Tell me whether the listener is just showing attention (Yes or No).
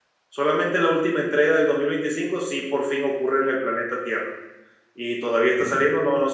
Yes